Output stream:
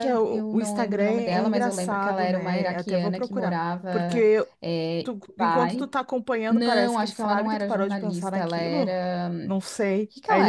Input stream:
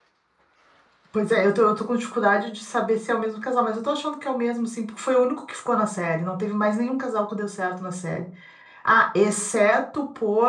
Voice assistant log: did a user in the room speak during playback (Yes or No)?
Yes